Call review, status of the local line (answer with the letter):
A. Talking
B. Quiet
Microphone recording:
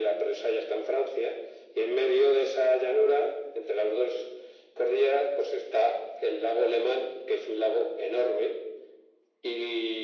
B